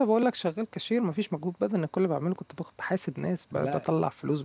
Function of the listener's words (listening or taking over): listening